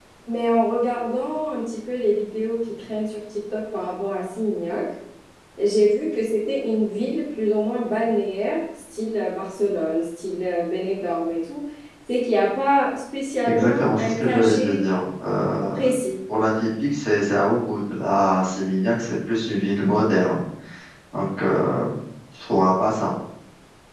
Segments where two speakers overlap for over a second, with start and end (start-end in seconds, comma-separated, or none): 13.4-14.8